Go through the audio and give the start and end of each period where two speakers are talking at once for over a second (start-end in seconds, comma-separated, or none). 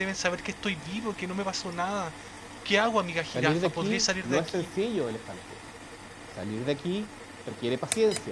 3.3-4.7